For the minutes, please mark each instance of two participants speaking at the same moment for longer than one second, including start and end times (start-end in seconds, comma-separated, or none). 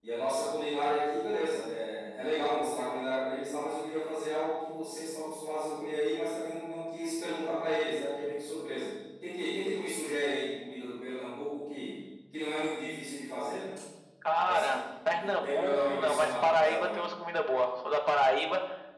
14.4-17.0